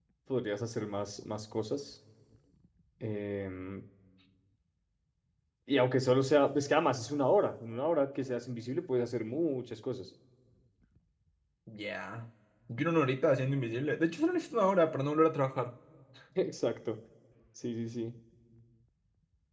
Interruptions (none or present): none